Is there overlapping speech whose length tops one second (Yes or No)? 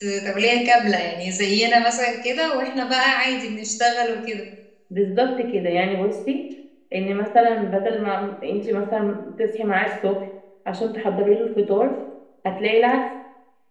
No